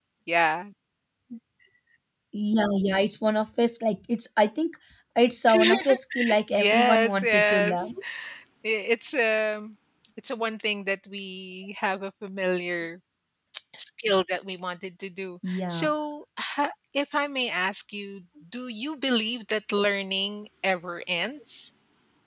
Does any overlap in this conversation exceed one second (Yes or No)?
Yes